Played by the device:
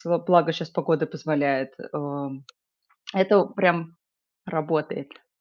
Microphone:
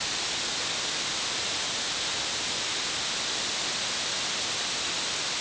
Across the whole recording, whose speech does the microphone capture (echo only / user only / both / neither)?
neither